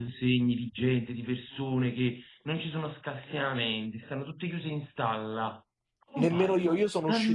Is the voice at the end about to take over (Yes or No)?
Yes